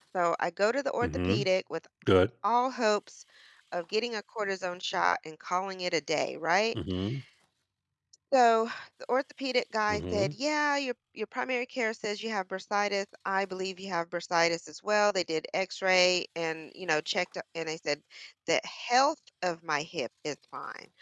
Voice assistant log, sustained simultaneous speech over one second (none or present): none